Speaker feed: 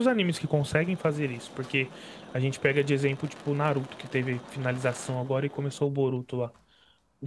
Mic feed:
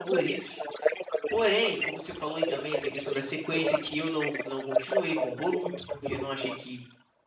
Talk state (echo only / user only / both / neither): both